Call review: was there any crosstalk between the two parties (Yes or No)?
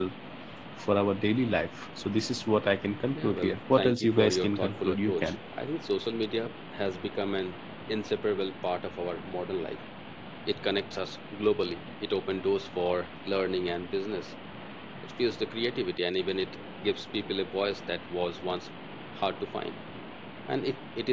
Yes